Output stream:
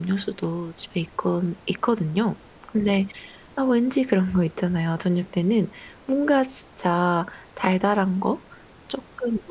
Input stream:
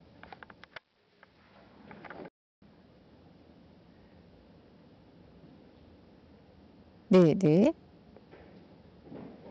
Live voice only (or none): 네 네.